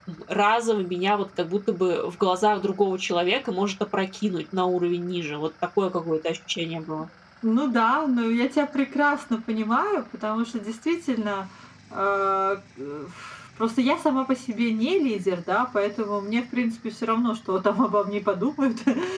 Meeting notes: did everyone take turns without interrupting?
Yes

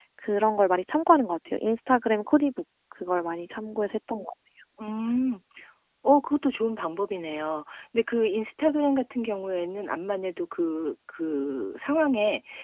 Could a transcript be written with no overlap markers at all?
Yes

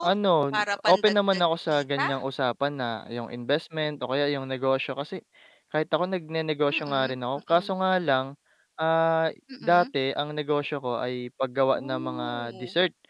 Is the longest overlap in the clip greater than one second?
Yes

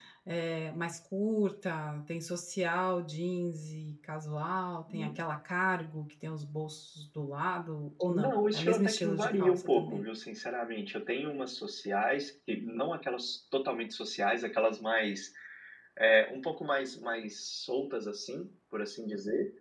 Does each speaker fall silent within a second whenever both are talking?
No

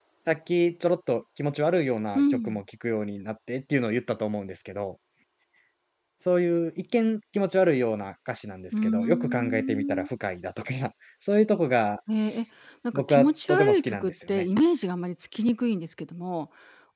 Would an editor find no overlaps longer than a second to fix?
No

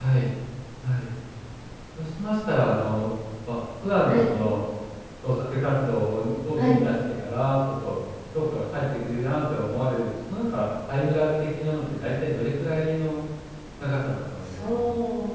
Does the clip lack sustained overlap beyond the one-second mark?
Yes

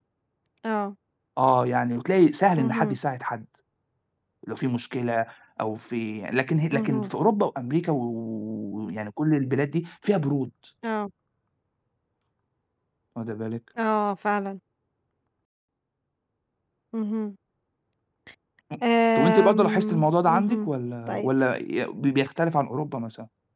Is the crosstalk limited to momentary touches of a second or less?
No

